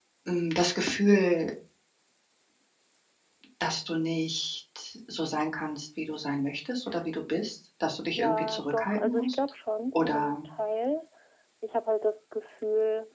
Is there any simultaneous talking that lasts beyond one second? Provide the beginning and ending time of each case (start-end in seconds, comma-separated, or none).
8.1-9.4